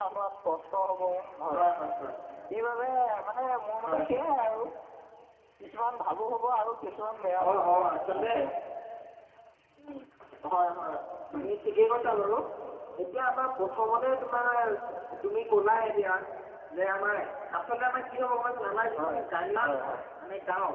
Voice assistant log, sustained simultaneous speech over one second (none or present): none